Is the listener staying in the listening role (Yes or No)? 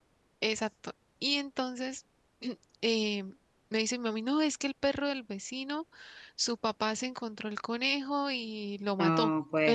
Yes